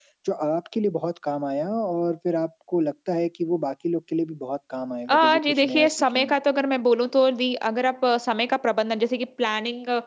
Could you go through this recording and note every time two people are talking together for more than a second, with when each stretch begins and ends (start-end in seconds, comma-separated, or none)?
5.1-6.3